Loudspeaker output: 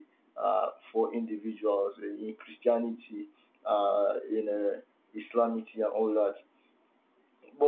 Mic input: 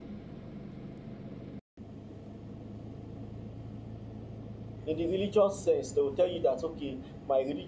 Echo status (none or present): none